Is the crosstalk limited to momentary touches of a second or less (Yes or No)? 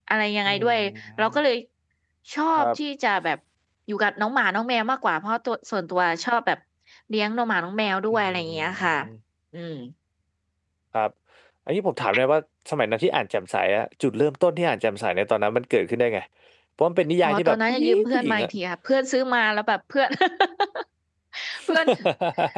No